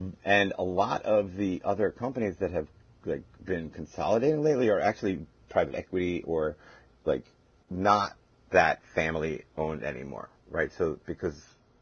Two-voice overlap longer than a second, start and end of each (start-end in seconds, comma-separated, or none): none